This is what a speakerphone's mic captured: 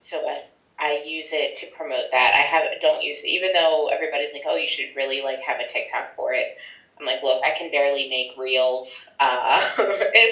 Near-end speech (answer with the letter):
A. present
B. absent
B